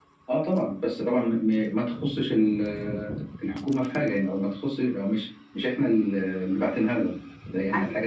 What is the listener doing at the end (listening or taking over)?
listening